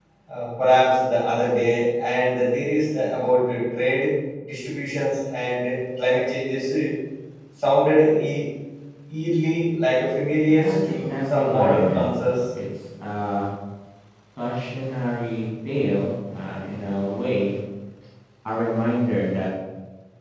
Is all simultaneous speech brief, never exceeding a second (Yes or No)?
No